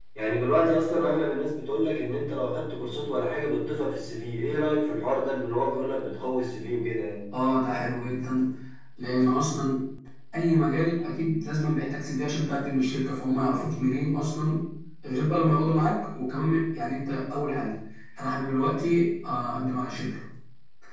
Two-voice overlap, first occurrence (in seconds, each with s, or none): none